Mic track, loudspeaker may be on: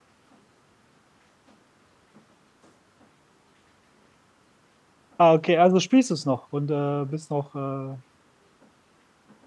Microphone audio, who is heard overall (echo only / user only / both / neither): user only